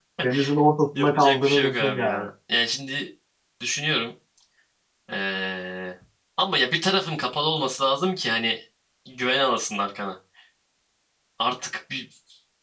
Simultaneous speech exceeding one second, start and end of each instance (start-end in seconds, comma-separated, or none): 1.0-2.3